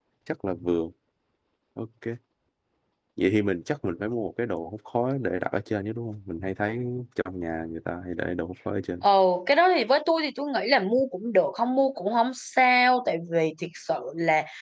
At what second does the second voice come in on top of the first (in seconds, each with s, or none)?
none